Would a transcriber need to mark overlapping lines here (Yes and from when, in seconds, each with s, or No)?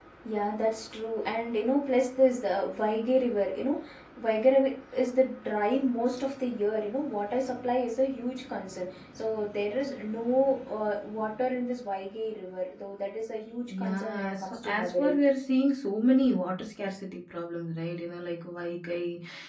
Yes, from 13.7 s